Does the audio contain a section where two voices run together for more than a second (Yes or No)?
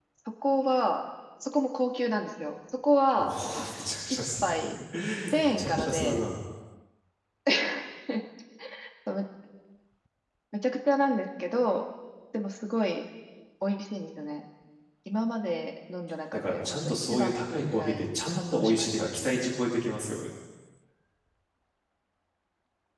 Yes